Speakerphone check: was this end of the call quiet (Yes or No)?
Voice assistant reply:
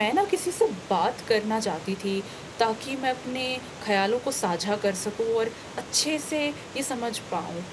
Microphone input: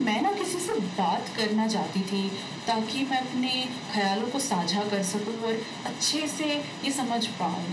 Yes